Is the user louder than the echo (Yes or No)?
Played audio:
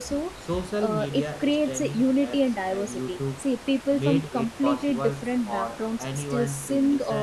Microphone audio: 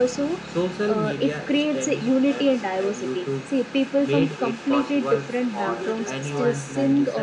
No